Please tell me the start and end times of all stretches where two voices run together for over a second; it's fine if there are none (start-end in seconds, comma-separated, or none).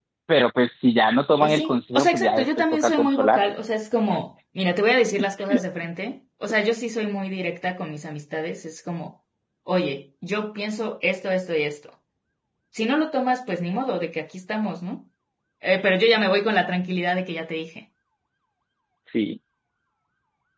1.4-3.4